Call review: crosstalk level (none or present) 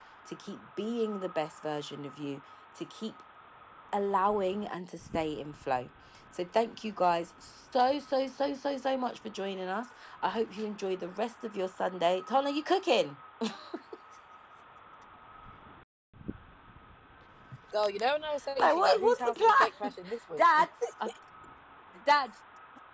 present